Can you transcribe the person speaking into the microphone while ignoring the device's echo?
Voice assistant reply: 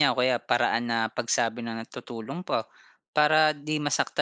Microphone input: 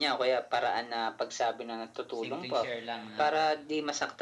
Simpleng share lang, 'no?

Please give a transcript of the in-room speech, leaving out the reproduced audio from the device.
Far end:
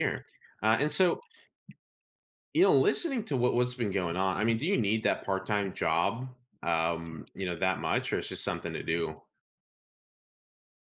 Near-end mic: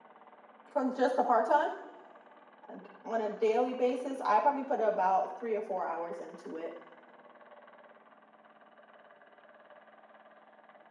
From just a part-time? uh And on a daily basis, I probably put about 3 or 4 hours into it.

